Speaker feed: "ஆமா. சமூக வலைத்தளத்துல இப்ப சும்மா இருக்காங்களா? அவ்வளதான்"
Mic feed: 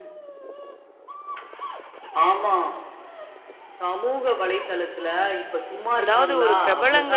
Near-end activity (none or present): present